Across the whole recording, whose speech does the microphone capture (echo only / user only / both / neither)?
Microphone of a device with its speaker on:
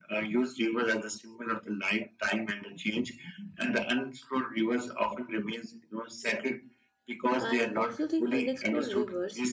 both